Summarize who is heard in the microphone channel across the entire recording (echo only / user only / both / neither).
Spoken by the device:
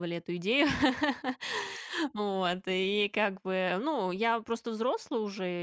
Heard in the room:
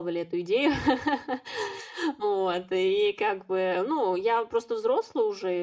echo only